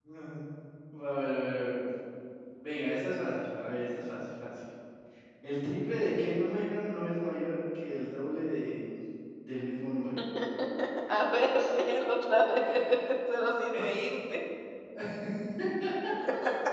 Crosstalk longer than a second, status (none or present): none